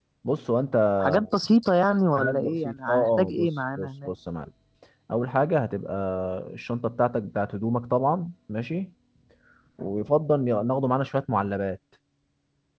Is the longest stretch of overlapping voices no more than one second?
No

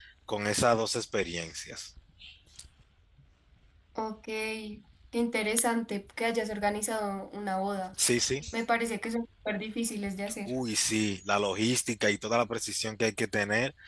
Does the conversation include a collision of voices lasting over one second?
No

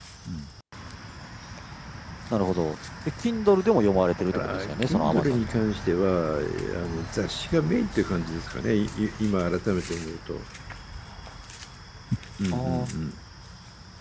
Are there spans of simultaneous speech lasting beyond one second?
Yes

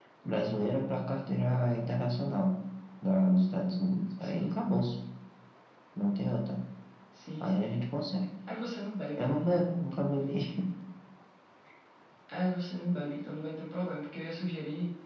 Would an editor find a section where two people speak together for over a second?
No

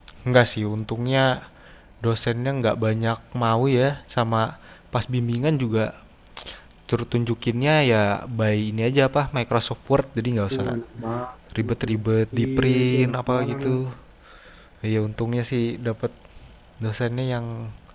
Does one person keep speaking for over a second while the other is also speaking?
Yes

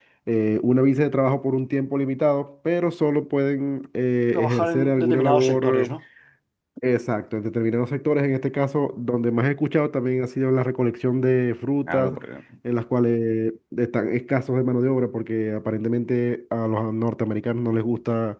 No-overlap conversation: No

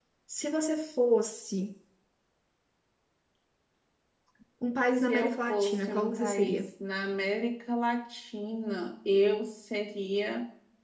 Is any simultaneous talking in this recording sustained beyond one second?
Yes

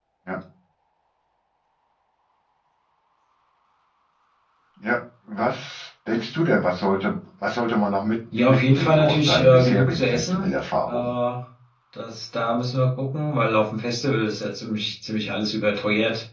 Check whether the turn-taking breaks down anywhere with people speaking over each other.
Yes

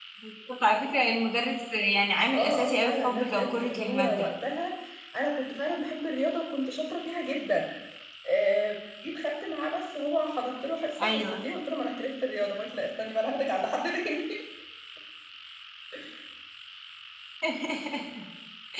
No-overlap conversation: No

